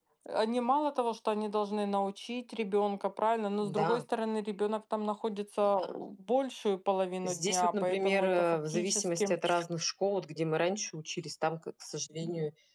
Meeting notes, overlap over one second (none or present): present